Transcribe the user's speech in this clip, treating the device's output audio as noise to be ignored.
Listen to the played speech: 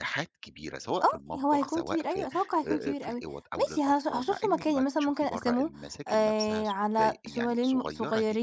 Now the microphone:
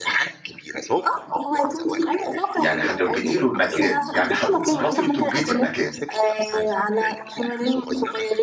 يعني هتوجدي له المكان، يعني هتتصرّفي وتوجدي المكان،

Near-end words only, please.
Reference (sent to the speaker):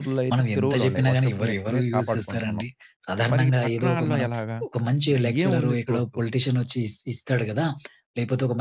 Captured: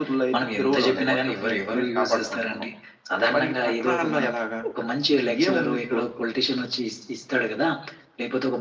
none

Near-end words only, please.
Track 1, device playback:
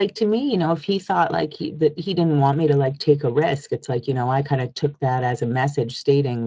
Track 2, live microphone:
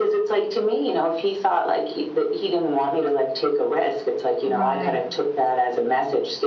Right,

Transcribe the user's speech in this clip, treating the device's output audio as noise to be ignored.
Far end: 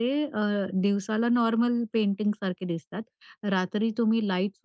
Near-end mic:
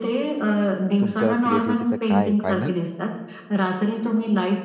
तुमच्या क्रिएटिव्हिटीचा काय फायनल

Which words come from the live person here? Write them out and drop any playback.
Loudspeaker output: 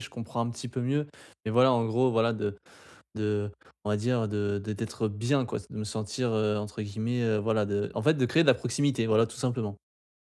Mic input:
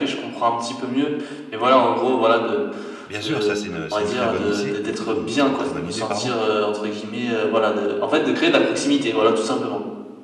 Bien sûr, ça c'est une c'est une très bonne idée. une pr une très bonne idée, pardon

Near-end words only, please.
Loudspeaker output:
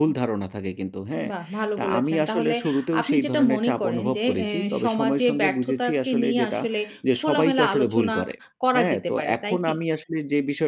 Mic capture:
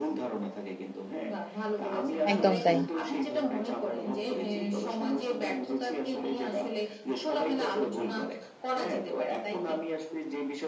একদম তাই।

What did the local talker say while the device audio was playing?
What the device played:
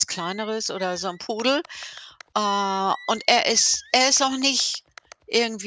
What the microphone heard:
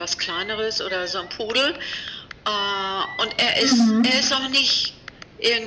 Mhm,

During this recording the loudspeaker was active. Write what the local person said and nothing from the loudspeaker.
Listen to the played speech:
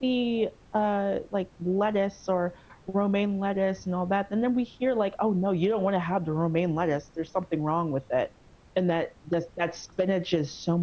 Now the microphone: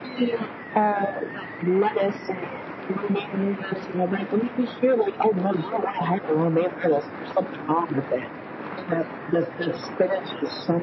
none

